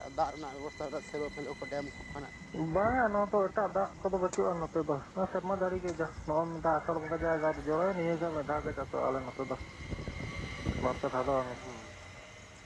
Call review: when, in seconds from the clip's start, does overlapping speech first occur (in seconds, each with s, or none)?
none